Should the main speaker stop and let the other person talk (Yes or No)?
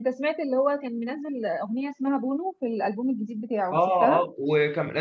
Yes